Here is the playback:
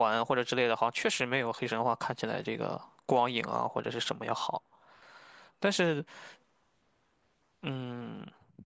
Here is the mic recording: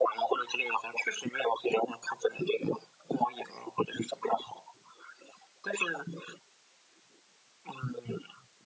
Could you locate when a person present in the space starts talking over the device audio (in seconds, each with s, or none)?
none